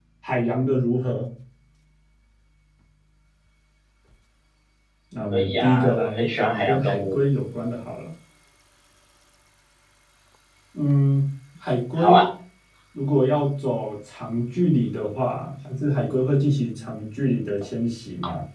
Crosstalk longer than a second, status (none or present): present